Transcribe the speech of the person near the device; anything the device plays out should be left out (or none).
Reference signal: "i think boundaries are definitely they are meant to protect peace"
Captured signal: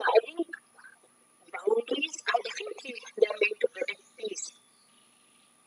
none